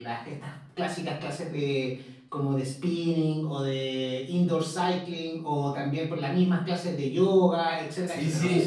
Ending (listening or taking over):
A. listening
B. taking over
B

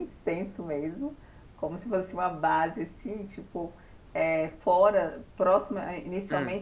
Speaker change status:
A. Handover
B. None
B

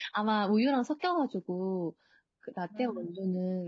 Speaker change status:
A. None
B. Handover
A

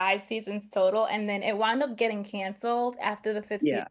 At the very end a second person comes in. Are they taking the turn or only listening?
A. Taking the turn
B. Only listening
B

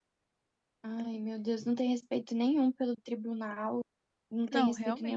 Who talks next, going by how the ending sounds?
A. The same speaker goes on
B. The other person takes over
A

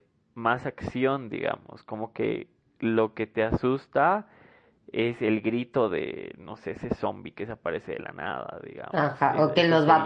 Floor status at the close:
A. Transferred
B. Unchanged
A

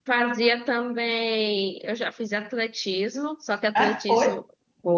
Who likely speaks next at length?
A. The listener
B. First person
B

